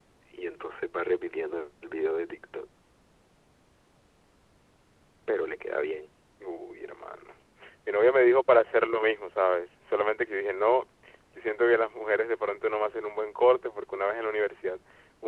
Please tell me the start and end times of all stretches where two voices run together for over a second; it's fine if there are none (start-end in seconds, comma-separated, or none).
none